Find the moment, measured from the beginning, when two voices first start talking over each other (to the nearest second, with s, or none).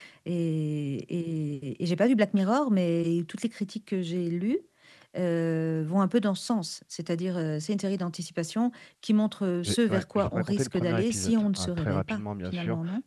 10 s